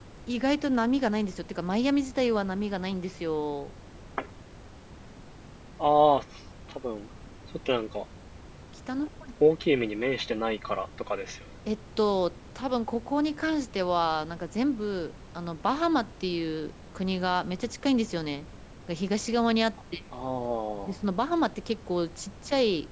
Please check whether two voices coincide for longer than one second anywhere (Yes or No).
No